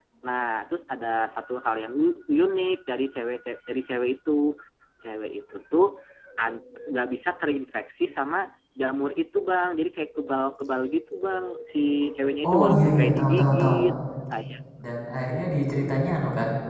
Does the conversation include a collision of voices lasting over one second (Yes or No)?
Yes